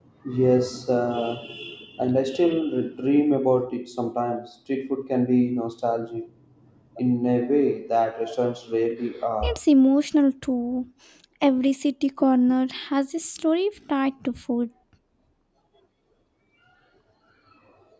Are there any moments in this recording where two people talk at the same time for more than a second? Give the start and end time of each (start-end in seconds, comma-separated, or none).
none